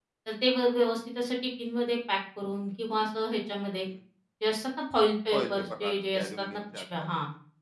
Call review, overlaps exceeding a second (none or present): present